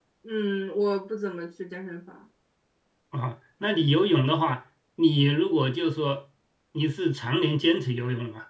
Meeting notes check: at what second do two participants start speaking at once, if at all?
none

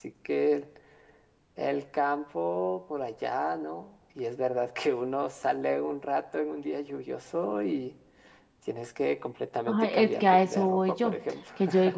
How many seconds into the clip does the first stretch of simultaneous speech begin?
9.7 s

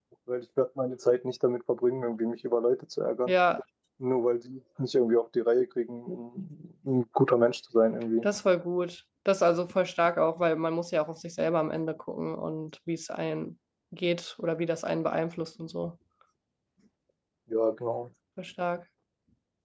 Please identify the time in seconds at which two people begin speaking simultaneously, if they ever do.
none

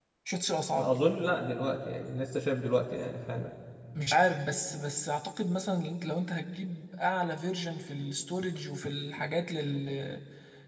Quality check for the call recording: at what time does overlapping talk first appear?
none

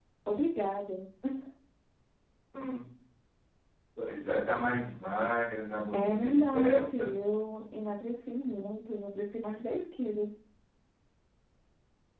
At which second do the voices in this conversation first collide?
5.9 s

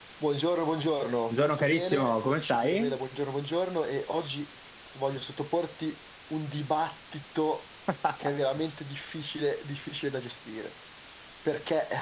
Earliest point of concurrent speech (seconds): 1.3 s

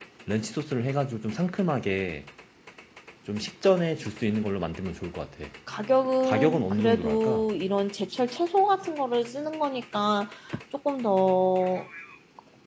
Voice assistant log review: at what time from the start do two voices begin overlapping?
6.2 s

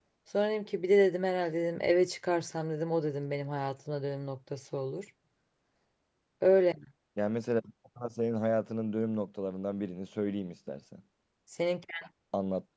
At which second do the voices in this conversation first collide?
none

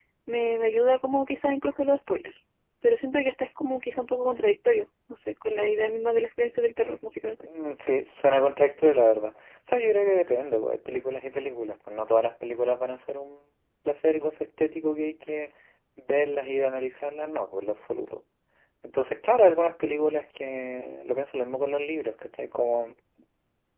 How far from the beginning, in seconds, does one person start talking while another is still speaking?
none

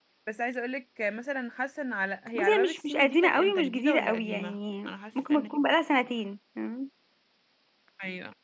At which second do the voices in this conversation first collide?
2.4 s

